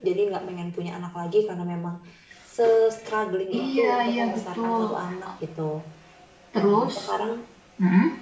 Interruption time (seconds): 3.6 s

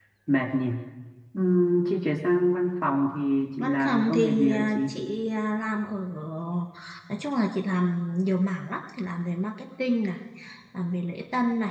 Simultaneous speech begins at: 3.5 s

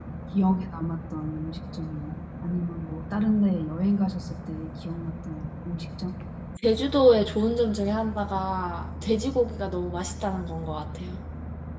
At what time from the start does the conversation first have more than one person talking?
none

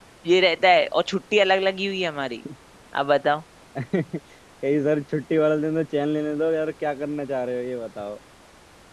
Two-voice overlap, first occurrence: none

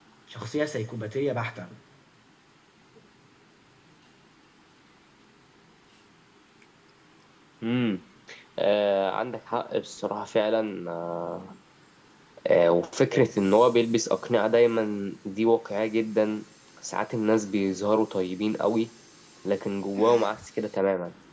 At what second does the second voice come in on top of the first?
none

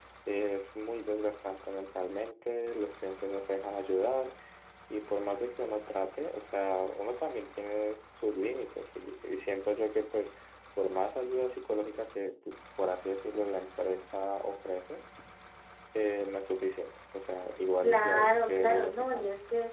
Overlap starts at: 17.8 s

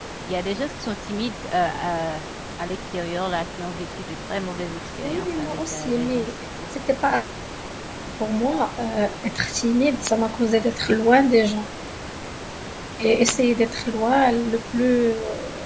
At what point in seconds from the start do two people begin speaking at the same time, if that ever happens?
5.0 s

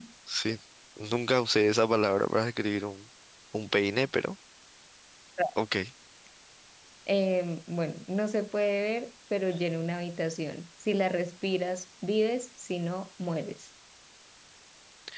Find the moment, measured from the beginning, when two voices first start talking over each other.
none

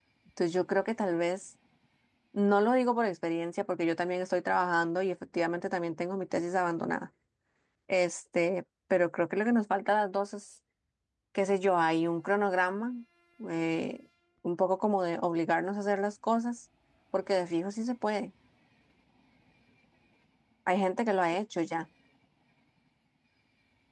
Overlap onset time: none

